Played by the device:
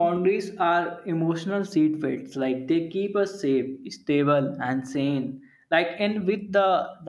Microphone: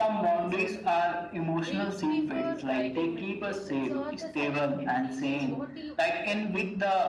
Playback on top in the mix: Yes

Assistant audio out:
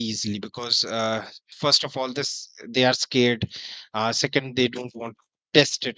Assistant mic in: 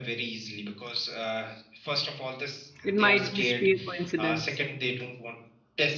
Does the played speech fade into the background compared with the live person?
Yes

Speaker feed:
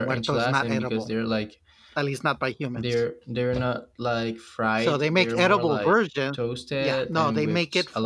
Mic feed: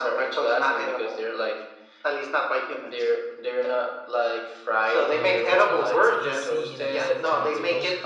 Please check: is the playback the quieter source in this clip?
No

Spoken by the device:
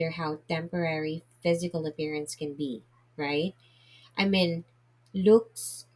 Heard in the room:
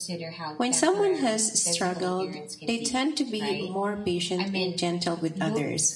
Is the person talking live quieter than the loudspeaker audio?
No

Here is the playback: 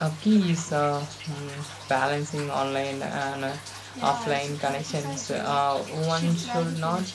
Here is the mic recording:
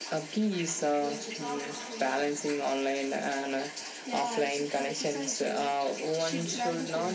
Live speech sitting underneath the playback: Yes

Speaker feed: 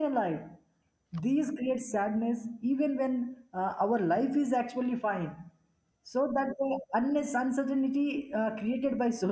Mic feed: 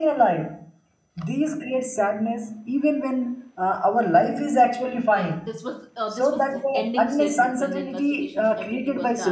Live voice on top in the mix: No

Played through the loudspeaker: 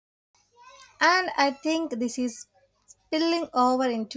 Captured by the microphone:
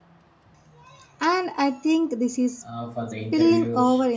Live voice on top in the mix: No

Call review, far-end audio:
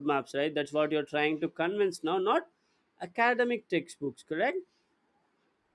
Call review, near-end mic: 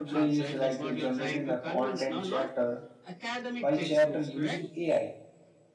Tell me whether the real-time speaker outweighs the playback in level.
Yes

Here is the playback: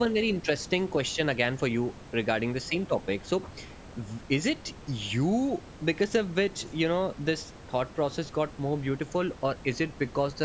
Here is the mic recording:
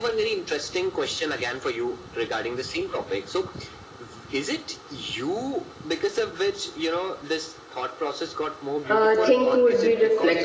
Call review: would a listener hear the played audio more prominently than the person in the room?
No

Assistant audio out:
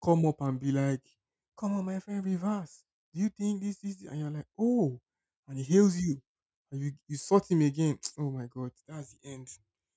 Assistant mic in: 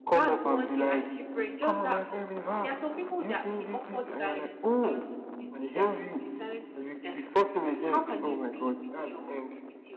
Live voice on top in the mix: No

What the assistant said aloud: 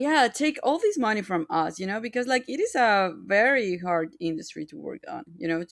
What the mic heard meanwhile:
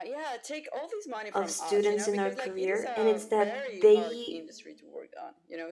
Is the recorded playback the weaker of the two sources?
Yes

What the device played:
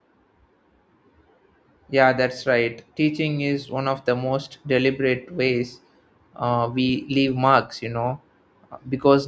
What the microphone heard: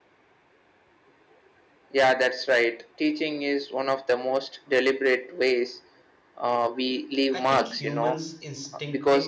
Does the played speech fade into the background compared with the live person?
No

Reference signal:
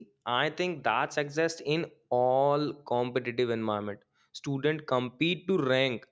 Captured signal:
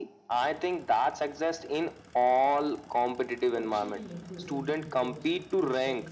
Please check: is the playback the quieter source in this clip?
No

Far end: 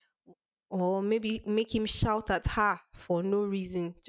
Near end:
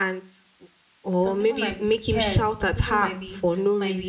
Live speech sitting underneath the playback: Yes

